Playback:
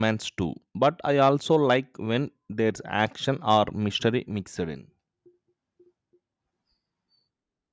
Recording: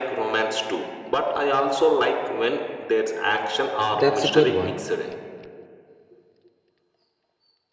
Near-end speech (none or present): present